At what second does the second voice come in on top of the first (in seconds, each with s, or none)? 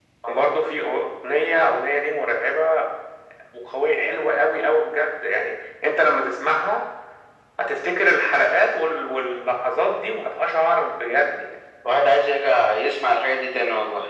none